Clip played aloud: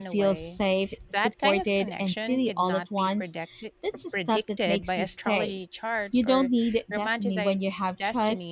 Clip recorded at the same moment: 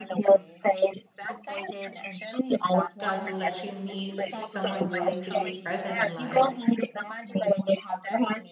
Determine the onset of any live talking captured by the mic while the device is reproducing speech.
3 s

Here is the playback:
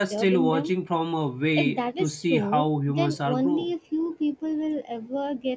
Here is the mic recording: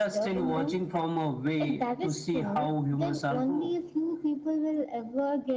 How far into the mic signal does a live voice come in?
none

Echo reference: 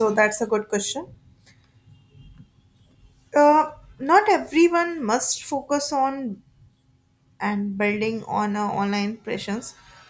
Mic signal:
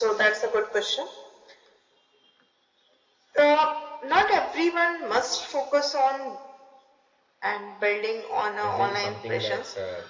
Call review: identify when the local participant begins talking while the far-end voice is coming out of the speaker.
9 s

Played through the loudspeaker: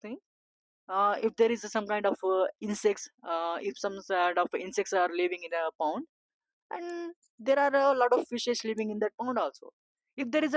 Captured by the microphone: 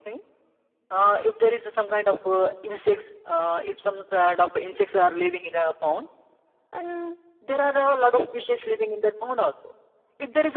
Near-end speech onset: none

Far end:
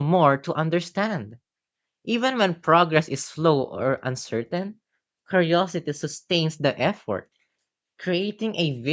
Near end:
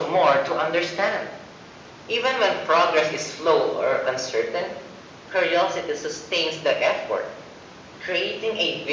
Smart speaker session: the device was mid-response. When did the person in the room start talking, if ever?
none

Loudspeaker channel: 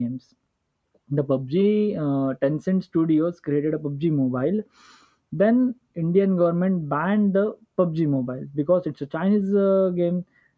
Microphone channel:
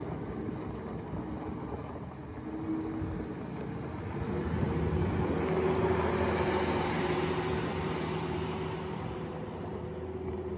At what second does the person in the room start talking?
none

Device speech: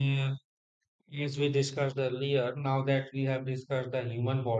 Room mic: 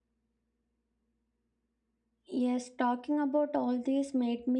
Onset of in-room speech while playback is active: 2 s

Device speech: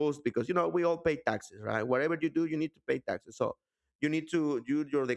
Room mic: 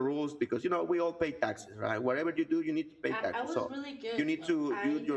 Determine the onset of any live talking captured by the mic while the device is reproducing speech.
3 s

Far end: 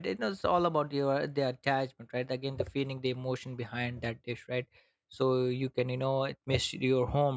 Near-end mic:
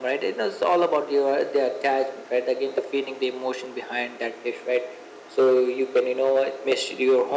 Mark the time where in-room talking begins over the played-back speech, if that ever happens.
none

